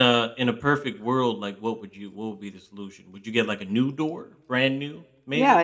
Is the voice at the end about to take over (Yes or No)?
Yes